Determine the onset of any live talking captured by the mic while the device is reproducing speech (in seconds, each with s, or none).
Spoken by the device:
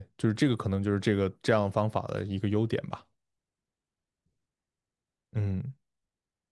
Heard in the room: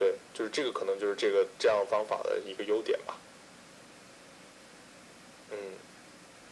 none